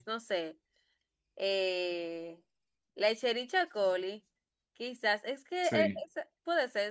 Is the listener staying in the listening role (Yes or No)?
Yes